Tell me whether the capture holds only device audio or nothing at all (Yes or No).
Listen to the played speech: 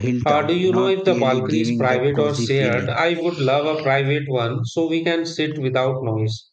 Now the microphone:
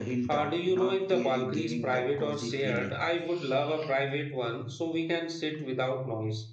Yes